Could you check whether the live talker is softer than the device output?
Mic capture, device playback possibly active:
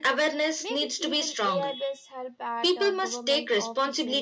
Yes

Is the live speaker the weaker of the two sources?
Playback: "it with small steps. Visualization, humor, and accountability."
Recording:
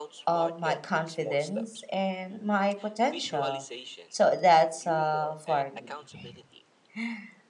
No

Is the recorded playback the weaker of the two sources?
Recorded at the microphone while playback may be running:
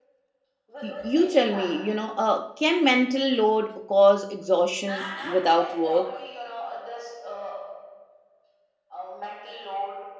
Yes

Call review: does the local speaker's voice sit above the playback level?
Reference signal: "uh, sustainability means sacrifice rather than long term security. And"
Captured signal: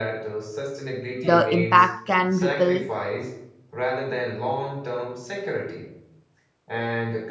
Yes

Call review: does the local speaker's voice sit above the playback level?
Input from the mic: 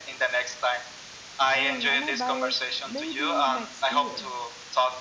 No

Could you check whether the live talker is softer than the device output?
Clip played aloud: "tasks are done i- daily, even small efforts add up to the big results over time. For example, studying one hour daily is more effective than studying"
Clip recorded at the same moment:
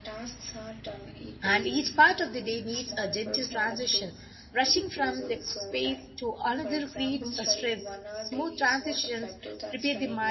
No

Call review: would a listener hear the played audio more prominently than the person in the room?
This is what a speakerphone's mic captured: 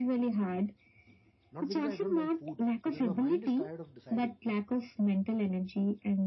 Yes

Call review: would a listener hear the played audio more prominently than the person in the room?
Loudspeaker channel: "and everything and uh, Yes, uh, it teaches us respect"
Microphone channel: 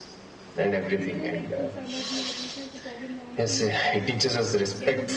Yes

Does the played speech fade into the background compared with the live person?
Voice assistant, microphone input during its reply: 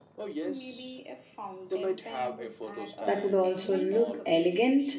Yes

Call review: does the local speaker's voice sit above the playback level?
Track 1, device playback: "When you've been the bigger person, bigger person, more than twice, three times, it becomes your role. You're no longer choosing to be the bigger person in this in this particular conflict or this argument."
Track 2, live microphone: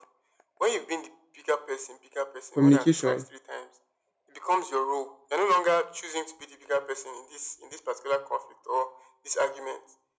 Yes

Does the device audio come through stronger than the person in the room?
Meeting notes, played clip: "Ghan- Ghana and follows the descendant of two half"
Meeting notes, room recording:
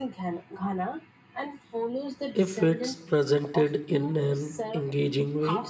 No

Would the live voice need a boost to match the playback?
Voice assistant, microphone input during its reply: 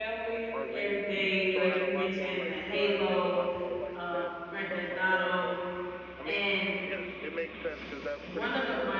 No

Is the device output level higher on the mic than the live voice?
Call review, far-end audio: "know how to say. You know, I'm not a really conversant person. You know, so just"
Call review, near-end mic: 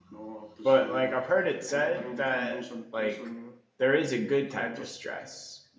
No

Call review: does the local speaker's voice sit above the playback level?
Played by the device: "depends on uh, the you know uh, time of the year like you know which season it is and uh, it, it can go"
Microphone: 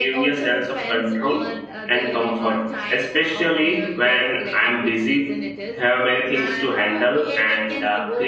Yes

